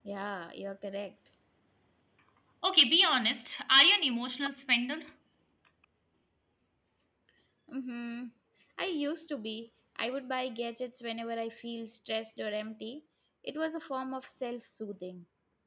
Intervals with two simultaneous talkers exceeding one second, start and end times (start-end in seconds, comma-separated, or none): none